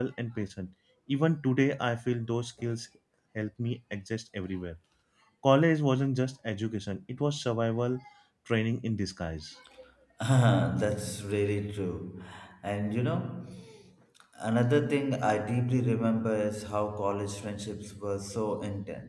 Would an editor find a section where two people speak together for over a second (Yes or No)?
No